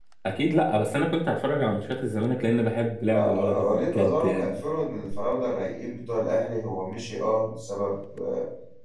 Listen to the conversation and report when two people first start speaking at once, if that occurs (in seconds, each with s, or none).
3.1 s